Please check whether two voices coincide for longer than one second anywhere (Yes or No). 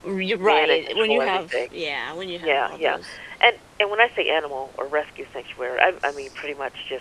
Yes